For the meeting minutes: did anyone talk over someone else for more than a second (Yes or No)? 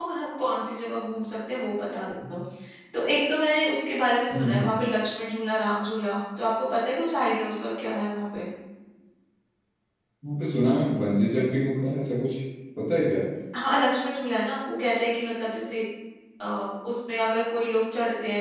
No